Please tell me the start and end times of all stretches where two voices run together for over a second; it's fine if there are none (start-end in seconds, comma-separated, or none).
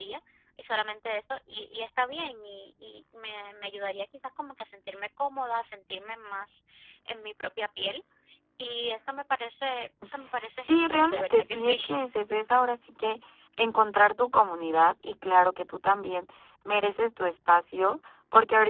10.7-12.0